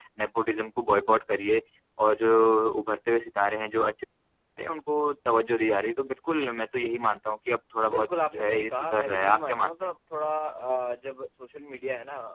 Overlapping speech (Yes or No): Yes